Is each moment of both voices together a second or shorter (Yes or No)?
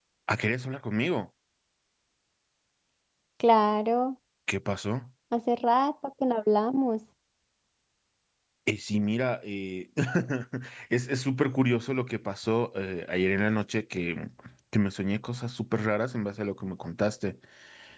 Yes